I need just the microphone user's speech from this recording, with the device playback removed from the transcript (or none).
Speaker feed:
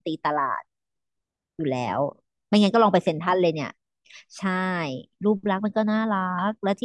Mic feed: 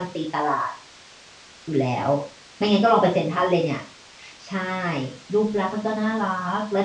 none